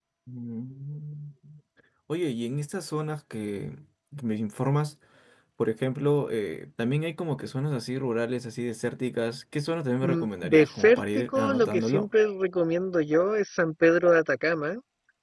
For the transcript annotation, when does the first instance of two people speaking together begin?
10.0 s

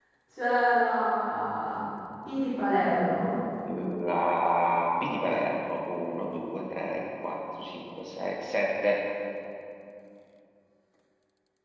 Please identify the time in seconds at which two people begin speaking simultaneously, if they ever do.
none

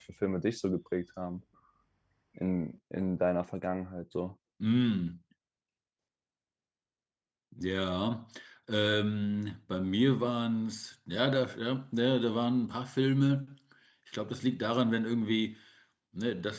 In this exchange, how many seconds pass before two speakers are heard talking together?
none

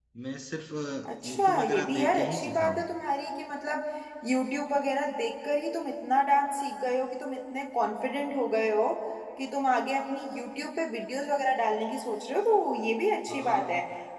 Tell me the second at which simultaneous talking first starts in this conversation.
1.3 s

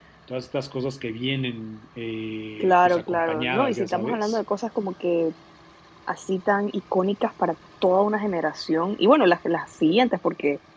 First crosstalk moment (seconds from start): 2.6 s

